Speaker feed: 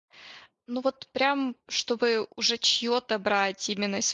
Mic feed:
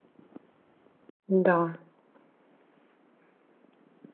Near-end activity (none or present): present